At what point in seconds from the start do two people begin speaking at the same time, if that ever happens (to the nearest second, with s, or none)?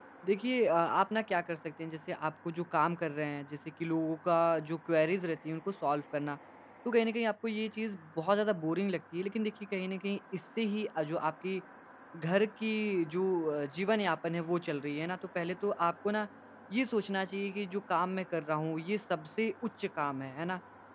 none